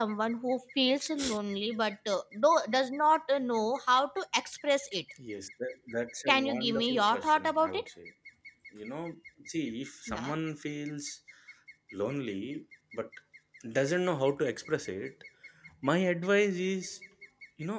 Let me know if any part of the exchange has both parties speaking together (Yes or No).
Yes